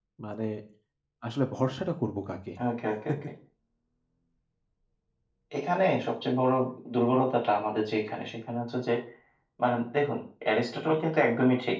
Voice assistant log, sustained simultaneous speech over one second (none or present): none